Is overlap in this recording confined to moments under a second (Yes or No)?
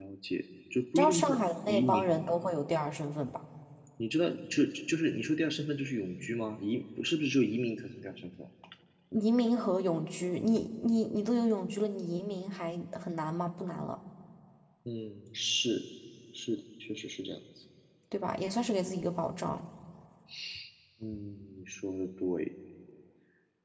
No